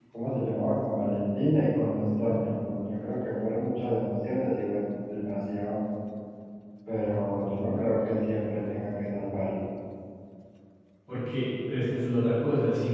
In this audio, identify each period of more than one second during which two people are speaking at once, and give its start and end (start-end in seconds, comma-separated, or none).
none